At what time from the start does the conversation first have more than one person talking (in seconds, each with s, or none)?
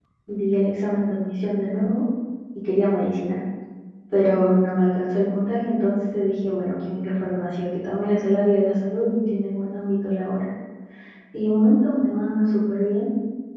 none